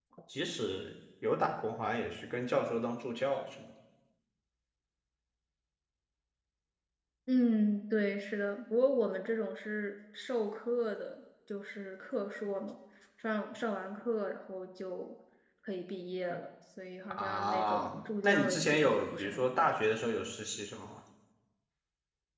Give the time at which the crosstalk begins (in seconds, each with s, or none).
17.1 s